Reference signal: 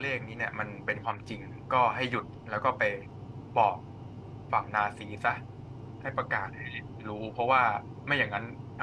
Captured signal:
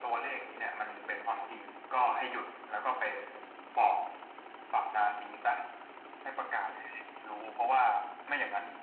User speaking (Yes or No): No